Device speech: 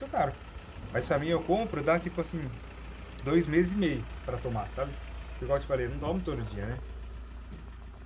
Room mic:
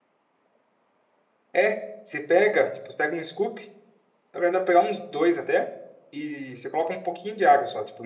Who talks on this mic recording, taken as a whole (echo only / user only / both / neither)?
user only